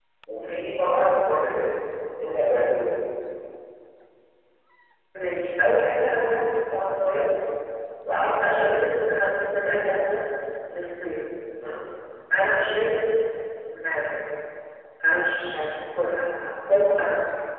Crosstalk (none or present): none